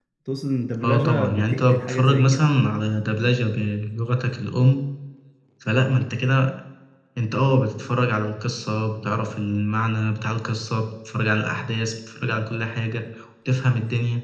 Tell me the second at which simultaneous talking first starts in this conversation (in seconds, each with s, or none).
0.8 s